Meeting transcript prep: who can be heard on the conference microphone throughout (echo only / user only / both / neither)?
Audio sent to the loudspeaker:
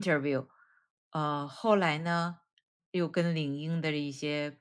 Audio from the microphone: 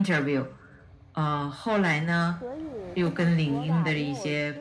both